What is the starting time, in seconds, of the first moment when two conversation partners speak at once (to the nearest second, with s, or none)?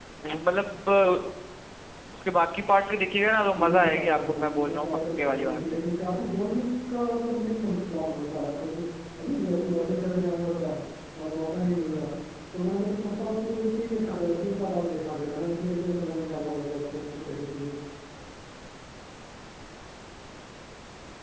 3 s